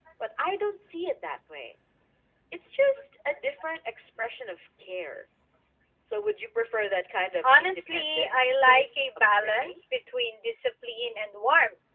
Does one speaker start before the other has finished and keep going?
Yes, from 7.4 s

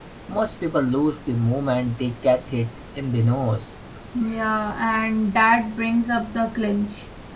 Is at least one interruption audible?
No

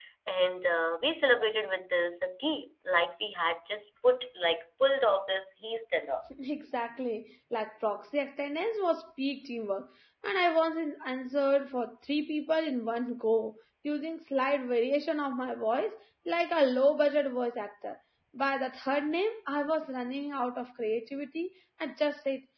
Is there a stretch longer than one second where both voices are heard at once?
No

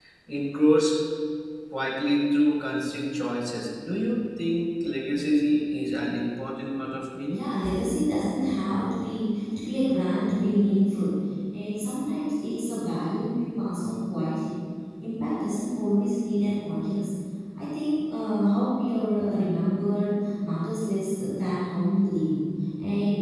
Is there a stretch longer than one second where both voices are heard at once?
No

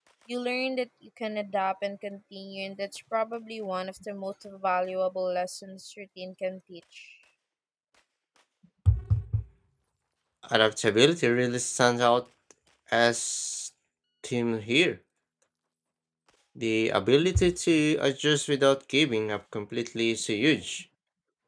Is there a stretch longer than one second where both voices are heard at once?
No

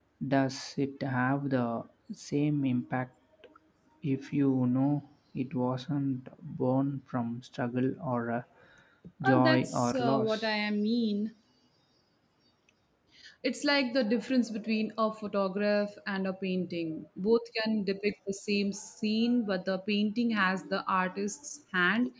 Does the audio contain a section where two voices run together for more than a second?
Yes, from 9.2 s

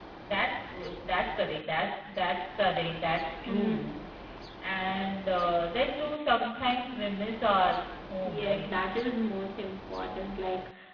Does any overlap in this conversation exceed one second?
No

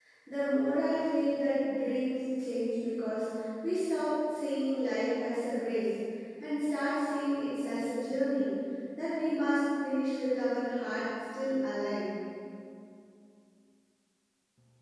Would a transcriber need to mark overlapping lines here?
No

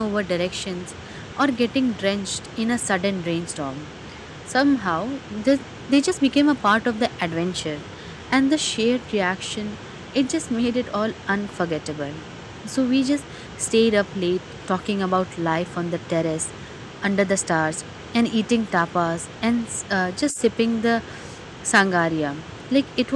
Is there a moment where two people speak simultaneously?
No

